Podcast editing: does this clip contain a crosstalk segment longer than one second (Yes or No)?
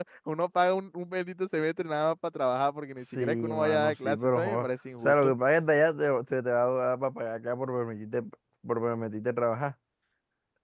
Yes